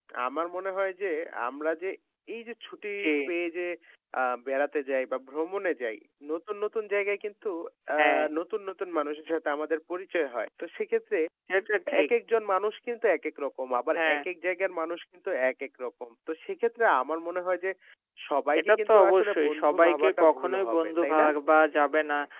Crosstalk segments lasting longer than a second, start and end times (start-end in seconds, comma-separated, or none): 18.6-21.3